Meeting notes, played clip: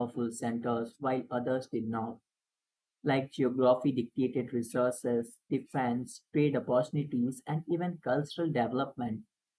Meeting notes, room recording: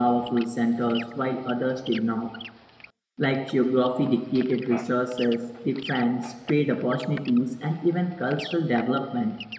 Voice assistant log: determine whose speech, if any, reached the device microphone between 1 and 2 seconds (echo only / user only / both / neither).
echo only